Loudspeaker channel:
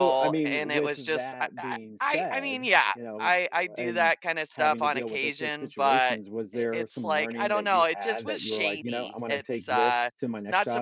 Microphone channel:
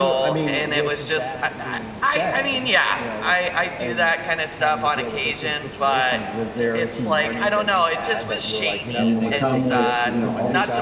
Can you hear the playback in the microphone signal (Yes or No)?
Yes